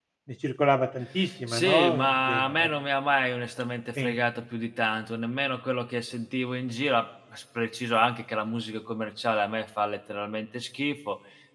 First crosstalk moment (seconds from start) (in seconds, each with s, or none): 1.5 s